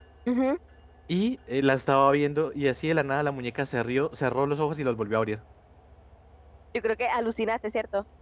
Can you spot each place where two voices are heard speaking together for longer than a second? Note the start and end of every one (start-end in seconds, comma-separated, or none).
none